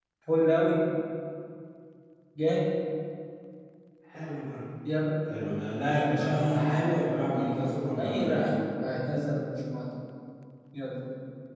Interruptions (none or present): present